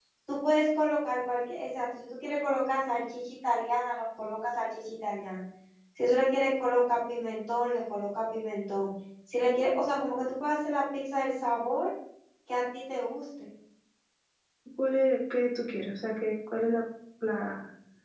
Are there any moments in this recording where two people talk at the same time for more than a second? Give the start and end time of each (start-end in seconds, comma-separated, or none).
none